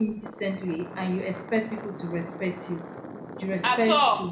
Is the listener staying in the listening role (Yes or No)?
Yes